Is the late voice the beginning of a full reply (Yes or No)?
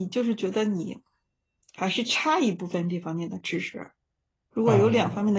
No